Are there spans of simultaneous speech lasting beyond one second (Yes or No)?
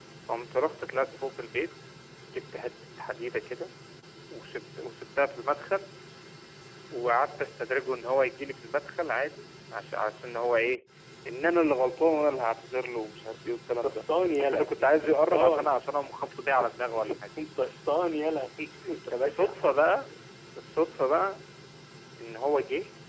Yes